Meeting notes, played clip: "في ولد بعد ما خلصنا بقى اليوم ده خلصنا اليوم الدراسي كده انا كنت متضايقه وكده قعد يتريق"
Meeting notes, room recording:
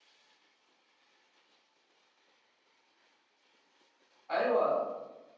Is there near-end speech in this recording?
Yes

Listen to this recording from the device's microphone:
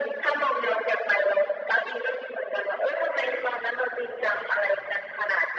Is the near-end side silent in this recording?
Yes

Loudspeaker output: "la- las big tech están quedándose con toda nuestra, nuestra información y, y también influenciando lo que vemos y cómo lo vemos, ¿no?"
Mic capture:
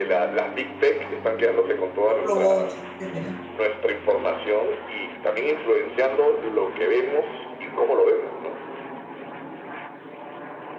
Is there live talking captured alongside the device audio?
Yes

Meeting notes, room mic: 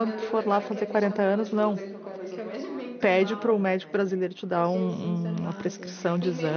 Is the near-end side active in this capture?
Yes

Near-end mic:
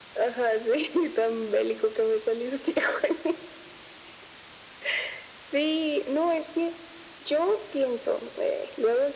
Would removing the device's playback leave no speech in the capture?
Yes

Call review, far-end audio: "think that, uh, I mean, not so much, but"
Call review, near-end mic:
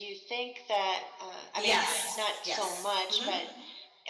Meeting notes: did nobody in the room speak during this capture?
No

